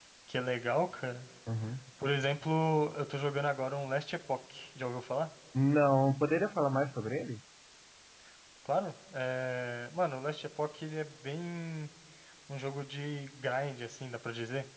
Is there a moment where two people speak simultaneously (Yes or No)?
No